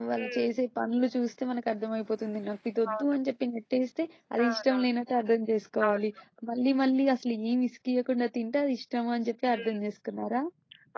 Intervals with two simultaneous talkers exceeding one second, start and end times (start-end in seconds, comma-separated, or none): none